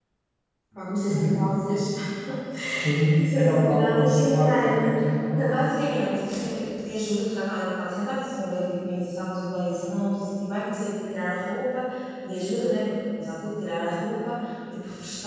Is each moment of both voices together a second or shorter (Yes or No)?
No